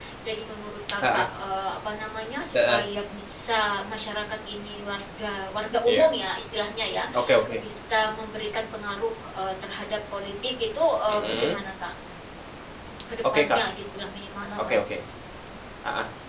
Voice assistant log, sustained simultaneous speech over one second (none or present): none